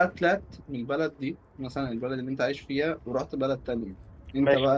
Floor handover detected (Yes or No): Yes